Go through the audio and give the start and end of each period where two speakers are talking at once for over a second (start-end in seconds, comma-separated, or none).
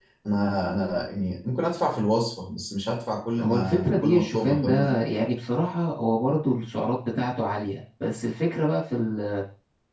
3.4-5.0